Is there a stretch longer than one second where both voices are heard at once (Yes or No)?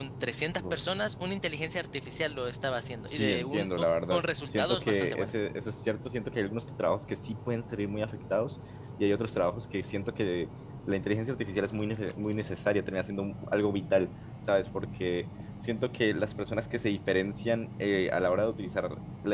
Yes